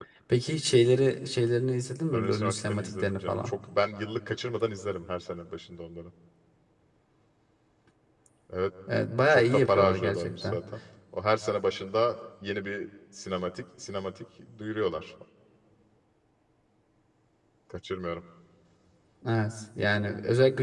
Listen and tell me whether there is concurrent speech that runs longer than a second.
Yes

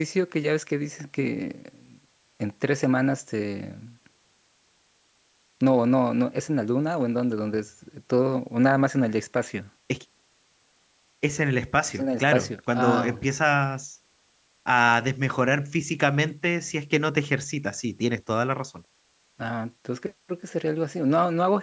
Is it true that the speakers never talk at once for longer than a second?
No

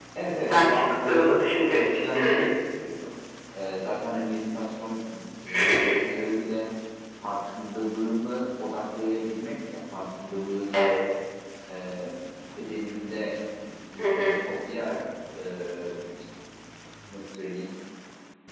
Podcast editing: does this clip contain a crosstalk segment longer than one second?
Yes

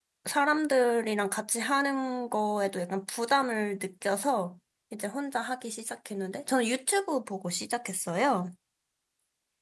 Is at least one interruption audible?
No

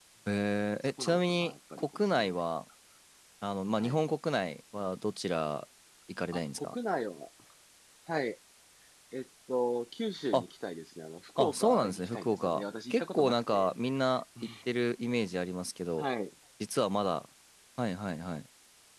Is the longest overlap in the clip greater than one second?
Yes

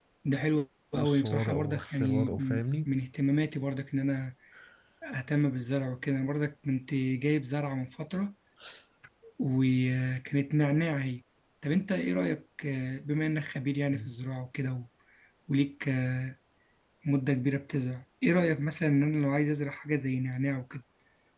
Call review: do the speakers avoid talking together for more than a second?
No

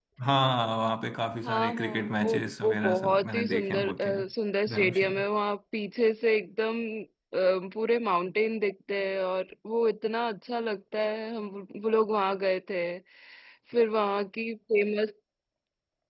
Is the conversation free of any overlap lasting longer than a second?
No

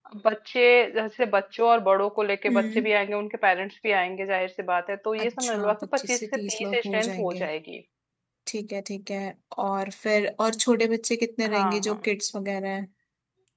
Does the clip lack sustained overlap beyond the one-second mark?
No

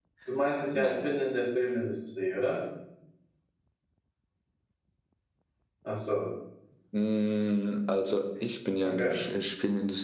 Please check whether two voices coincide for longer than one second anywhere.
No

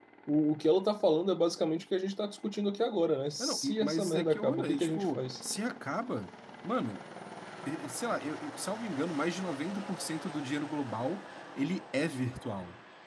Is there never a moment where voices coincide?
No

